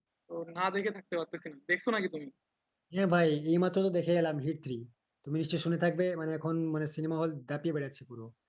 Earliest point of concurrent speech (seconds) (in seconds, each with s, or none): none